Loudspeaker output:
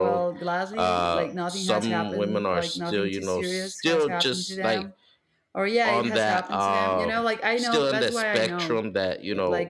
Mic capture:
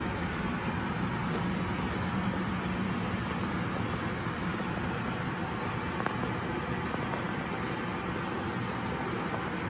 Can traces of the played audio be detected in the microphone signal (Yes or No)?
No